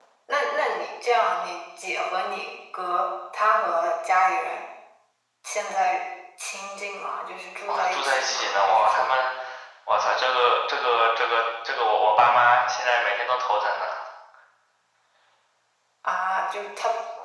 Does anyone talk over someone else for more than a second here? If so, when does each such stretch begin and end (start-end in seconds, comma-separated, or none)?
7.7-9.0